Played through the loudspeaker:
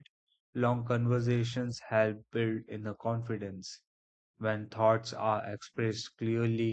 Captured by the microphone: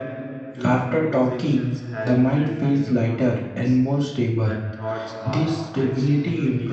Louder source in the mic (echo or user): user